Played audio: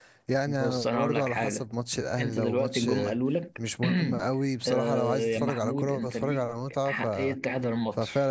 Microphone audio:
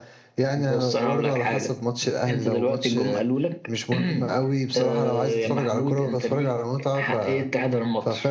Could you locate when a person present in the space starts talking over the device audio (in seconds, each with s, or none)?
none